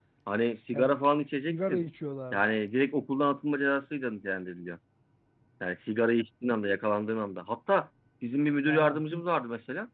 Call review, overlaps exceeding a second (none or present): none